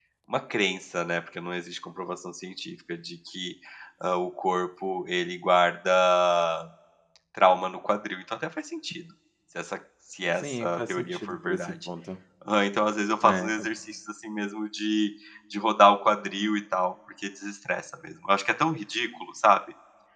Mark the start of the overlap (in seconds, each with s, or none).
10.4 s